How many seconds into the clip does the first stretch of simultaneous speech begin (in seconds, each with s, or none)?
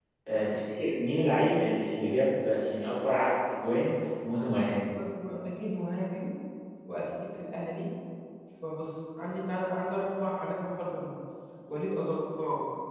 none